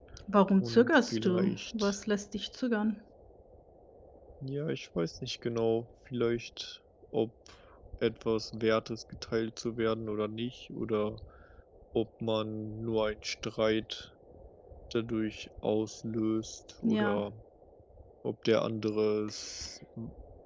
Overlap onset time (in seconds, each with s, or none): 0.6 s